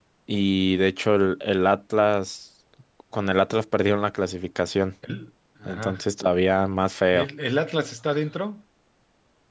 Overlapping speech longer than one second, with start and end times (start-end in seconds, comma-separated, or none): none